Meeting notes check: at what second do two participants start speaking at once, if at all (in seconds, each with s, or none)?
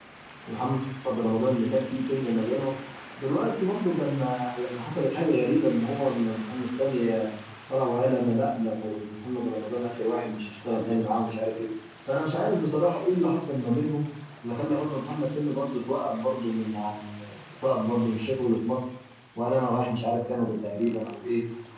none